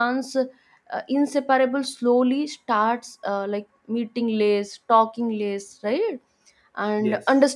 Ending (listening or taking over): listening